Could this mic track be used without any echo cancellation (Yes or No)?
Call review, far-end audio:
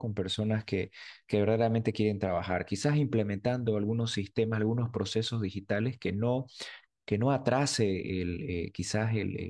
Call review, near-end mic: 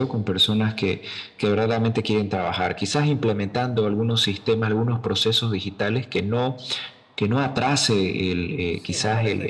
No